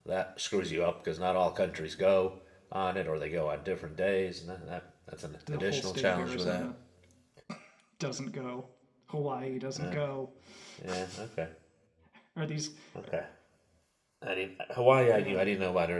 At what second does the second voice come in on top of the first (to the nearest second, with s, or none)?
5 s